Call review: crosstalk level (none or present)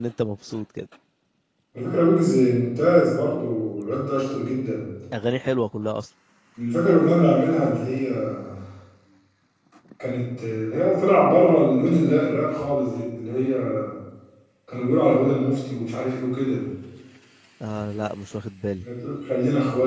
none